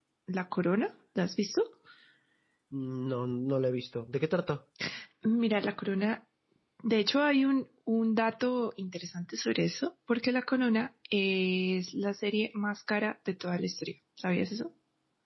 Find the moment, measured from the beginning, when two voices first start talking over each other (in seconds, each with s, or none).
none